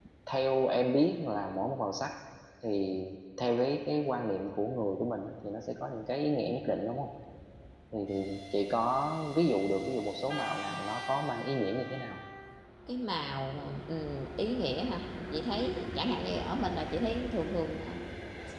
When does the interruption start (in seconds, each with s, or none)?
none